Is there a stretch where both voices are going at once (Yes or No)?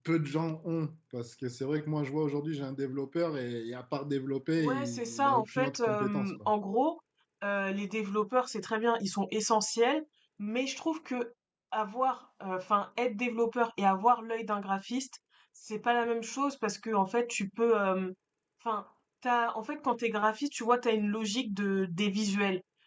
Yes